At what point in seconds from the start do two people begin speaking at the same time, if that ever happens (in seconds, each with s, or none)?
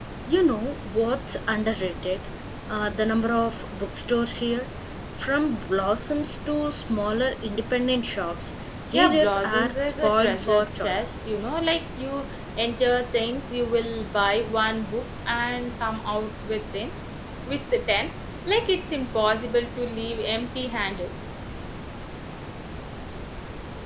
8.9 s